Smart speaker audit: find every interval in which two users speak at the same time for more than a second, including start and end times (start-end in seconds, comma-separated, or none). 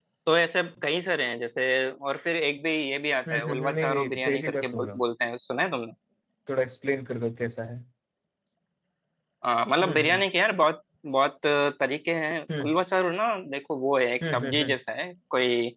3.3-5.0